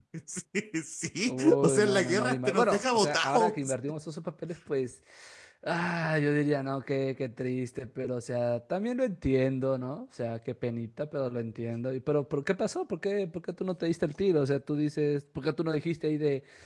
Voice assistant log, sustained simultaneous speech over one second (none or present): present